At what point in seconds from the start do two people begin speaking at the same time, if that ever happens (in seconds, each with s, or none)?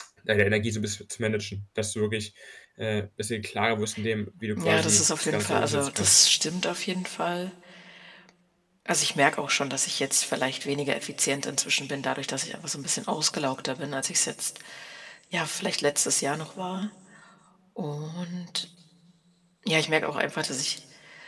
4.6 s